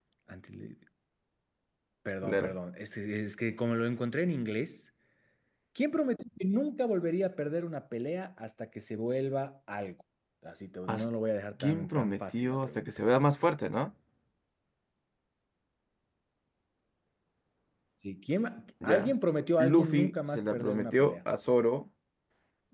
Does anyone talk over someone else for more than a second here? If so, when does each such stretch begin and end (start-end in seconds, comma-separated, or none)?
11.6-12.9, 19.6-21.1